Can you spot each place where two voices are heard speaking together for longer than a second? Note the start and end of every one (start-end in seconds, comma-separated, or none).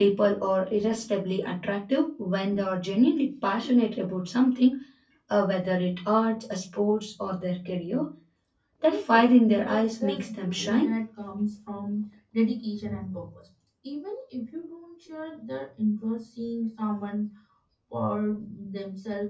8.8-10.9